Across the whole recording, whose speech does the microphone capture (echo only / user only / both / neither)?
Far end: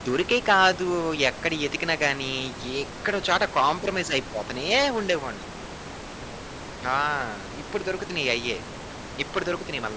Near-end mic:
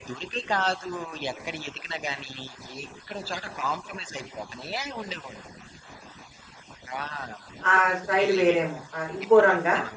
both